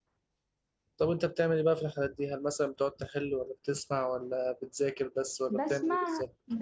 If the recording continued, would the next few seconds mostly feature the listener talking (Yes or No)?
Yes